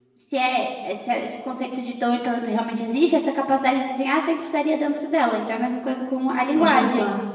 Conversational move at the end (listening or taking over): taking over